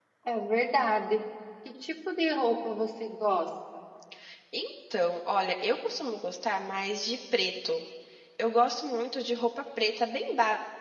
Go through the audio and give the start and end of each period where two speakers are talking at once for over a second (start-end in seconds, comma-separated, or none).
none